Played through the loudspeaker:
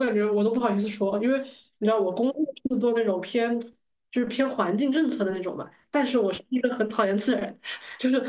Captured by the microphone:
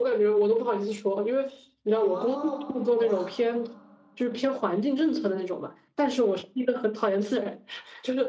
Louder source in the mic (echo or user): echo